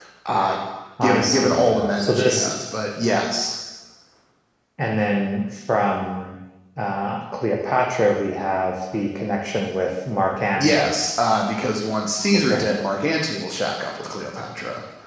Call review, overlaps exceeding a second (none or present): present